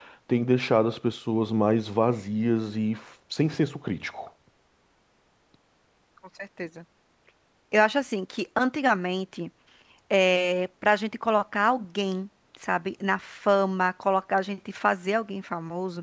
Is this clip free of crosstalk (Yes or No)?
Yes